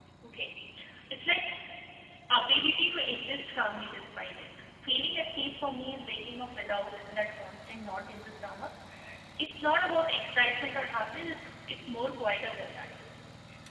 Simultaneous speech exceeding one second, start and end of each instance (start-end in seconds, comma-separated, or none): none